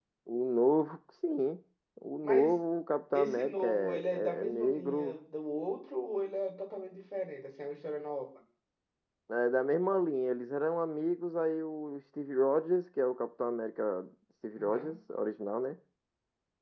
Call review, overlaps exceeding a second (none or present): present